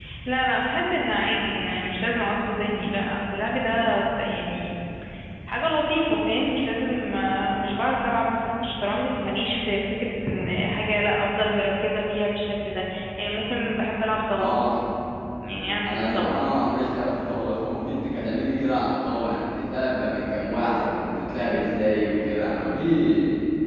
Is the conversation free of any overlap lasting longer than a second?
Yes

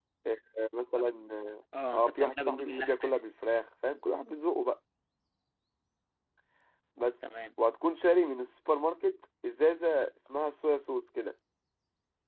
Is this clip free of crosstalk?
No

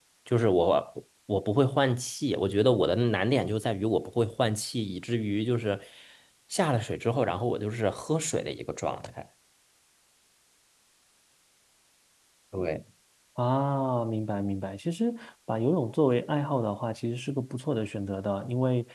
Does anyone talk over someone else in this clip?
No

